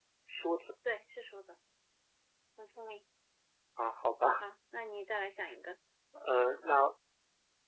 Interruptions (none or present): none